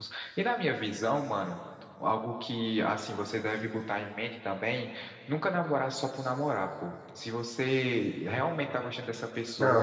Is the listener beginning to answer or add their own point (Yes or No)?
Yes